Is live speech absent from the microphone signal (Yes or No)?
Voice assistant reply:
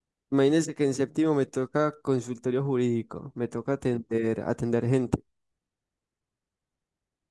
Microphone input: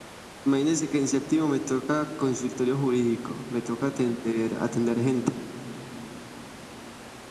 Yes